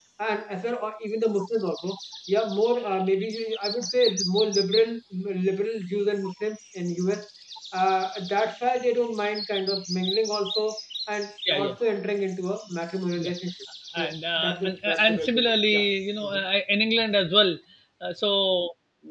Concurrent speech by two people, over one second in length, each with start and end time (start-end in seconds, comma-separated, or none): 14.0-15.8